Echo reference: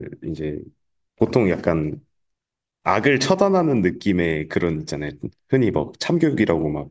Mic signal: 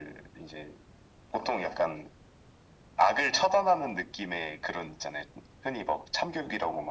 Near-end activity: none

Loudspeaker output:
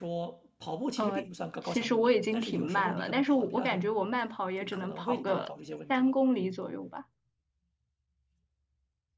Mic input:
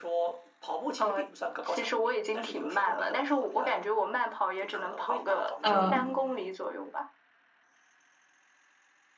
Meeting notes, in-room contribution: present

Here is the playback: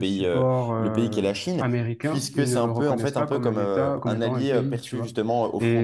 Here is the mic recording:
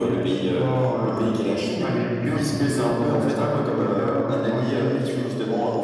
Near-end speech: none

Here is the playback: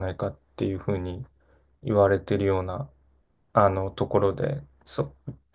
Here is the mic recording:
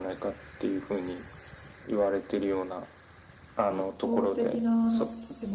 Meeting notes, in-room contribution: present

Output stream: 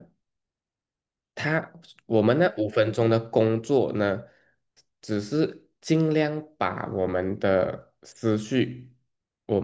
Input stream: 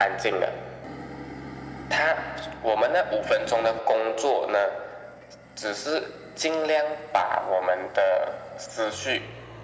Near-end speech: none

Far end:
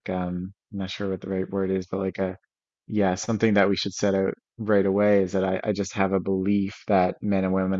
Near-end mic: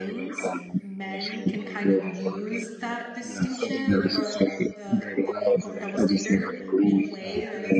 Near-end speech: present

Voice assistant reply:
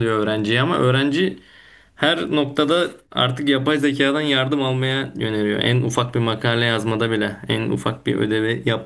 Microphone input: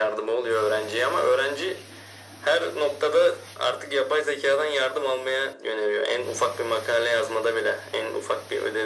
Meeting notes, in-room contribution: none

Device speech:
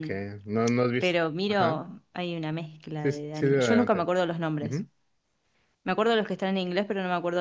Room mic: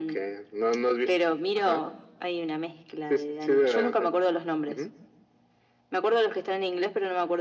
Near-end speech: none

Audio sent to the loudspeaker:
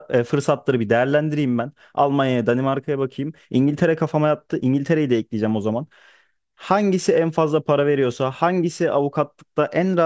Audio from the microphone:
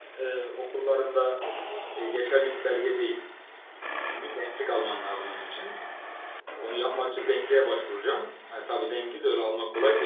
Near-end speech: present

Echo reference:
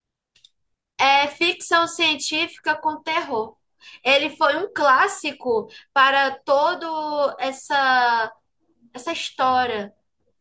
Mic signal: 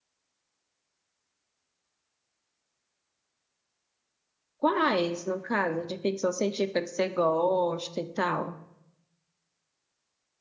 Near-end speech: present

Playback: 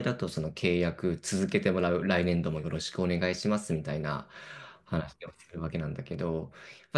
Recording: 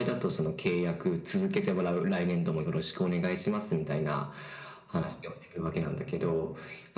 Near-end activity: none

